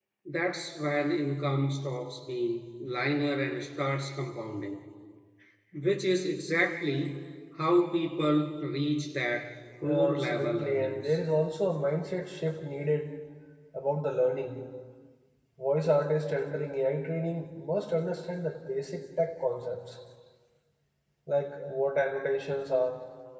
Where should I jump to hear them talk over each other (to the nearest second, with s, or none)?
10 s